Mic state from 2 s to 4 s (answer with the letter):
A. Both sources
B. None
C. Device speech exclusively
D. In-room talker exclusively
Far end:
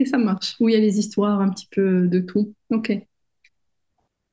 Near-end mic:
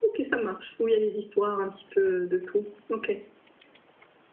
C